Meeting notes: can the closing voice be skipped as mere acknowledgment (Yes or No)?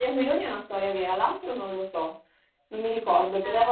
No